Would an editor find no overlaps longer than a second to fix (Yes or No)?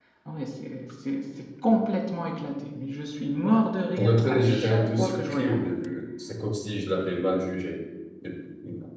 No